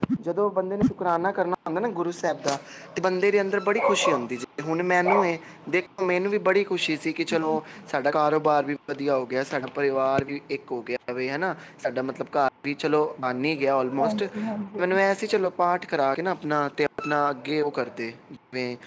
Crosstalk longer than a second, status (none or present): none